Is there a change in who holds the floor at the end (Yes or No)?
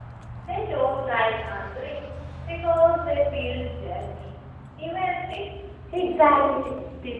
Yes